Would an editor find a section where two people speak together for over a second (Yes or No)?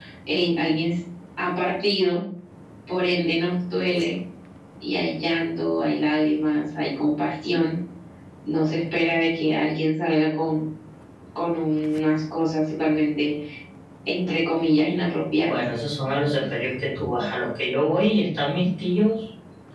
No